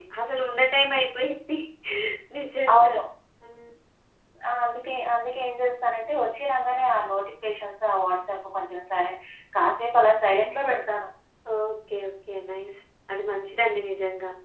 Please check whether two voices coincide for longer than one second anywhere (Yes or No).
No